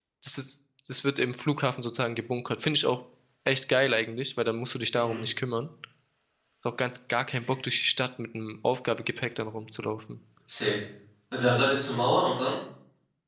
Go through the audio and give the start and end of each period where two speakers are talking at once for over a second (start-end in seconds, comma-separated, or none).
none